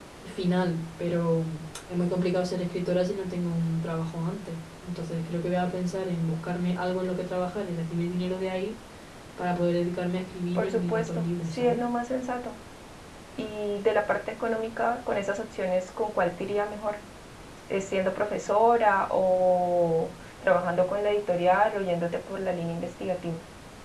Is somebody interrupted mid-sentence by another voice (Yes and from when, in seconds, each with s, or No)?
Yes, from 10.6 s